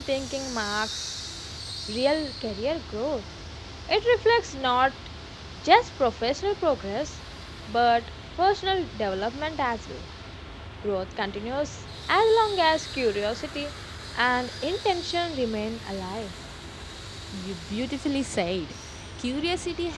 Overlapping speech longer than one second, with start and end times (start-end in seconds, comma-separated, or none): none